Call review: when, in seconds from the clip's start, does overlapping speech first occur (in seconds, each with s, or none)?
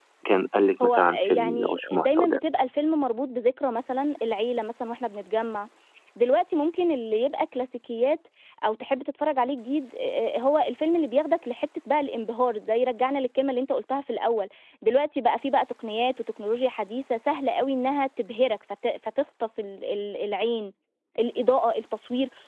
0.8 s